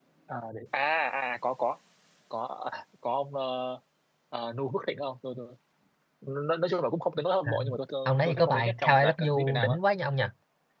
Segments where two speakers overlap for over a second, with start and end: 8.1-9.8

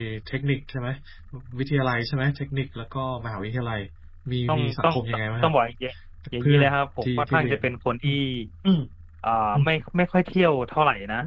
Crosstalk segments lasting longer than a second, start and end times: 6.4-7.6

